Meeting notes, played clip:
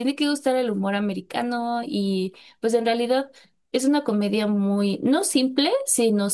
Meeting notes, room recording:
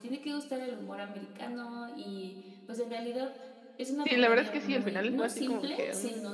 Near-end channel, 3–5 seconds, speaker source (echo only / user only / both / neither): both